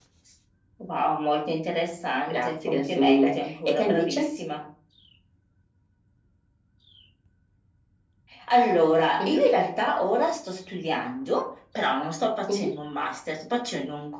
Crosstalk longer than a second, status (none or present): present